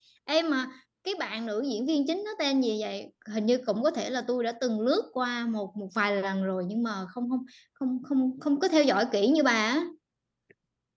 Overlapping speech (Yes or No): No